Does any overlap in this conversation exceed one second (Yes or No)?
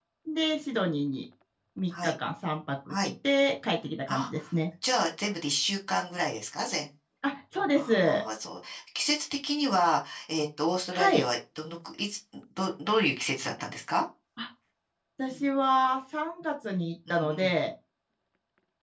No